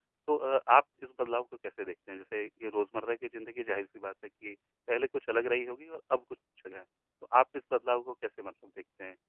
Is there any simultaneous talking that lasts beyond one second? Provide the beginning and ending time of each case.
none

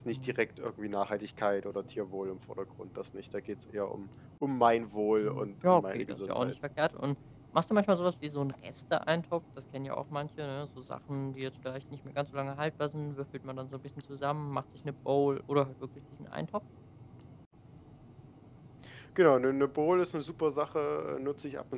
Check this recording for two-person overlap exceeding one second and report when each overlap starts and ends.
5.2-6.5

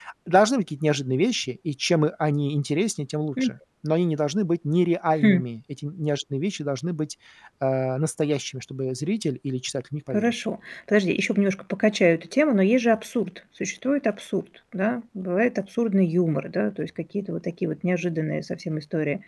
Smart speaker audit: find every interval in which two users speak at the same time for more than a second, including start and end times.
none

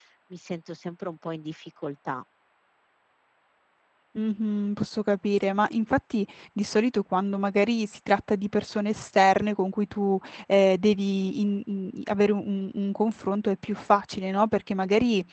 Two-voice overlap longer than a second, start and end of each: none

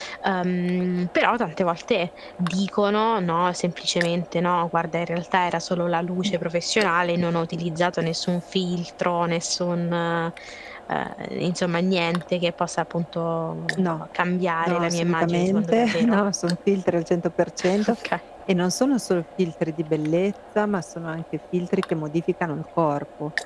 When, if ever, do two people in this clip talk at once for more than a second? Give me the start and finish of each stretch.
14.6-16.2

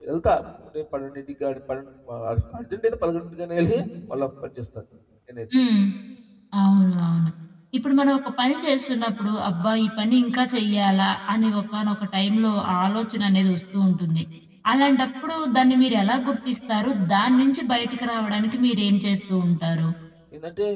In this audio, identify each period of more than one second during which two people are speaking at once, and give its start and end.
none

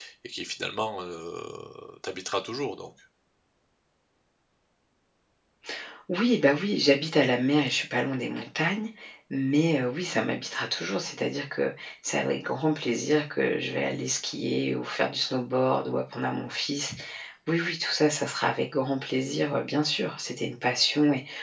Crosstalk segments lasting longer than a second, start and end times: none

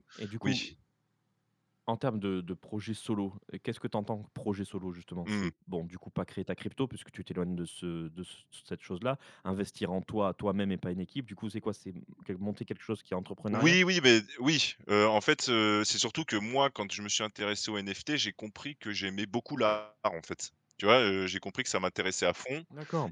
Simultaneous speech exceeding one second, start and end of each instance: none

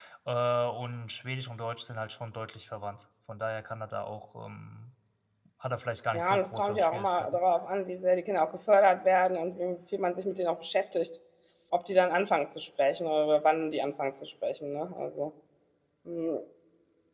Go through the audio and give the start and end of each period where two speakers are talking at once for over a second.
6.1-7.4

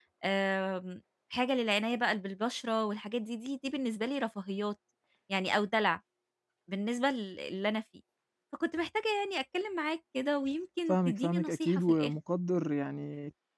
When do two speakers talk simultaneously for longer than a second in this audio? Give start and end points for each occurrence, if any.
10.9-12.1

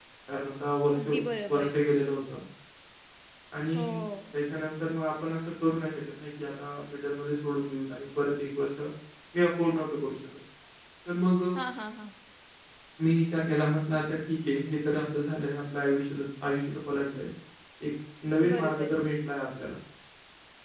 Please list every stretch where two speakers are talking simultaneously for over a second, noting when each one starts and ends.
none

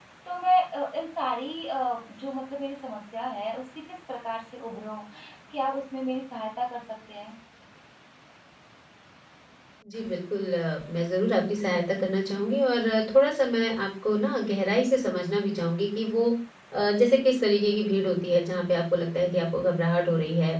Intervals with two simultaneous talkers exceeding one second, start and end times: none

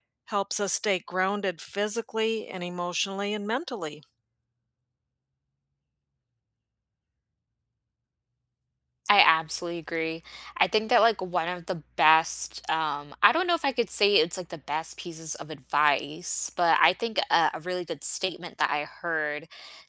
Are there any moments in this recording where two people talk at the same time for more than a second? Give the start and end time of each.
none

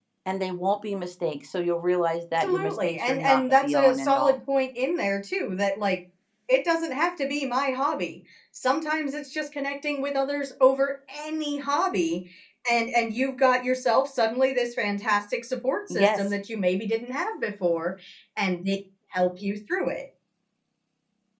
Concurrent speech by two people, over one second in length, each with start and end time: 2.4-4.3

